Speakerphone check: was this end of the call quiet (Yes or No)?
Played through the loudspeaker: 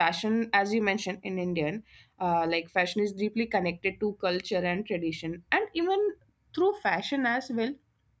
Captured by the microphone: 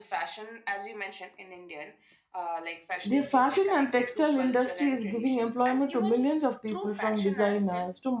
No